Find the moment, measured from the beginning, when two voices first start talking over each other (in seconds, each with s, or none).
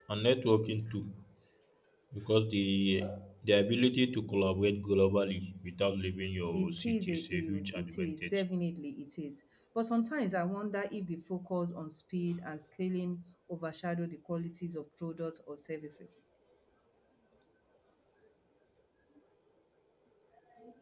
6.5 s